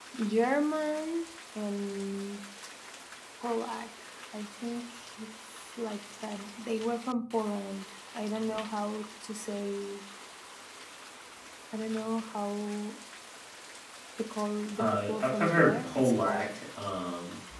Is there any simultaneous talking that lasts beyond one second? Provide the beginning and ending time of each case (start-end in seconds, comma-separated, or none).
14.8-16.6